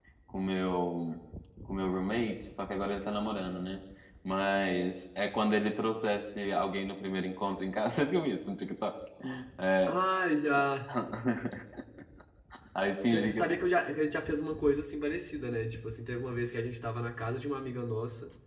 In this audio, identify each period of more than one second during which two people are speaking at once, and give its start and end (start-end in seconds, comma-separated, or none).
none